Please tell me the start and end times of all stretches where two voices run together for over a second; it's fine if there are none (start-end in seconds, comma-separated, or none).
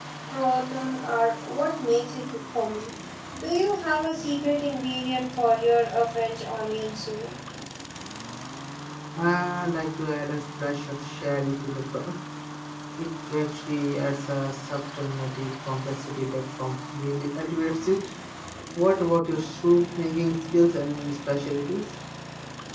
none